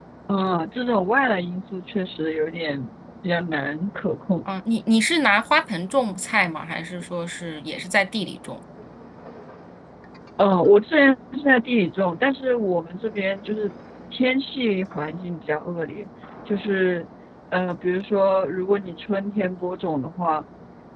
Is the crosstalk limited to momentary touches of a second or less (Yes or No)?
Yes